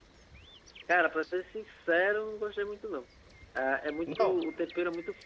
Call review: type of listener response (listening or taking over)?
listening